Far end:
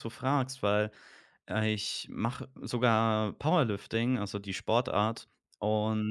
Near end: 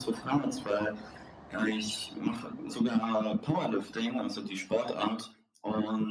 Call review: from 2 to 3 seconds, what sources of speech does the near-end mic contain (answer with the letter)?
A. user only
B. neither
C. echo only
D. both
C